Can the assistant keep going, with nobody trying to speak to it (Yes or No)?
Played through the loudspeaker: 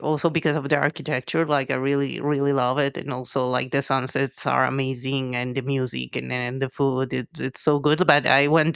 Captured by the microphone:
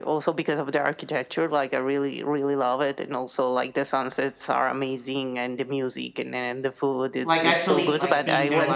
No